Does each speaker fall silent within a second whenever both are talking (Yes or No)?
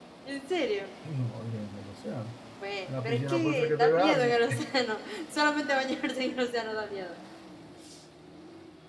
No